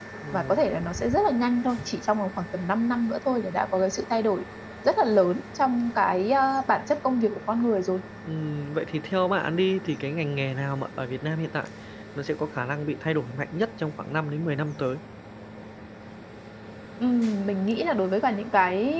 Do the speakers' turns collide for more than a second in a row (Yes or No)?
No